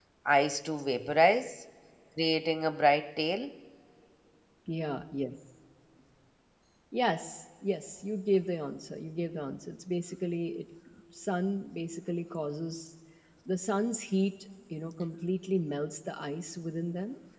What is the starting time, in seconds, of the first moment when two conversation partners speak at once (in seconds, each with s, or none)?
none